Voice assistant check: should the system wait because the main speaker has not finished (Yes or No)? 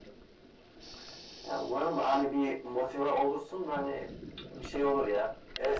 No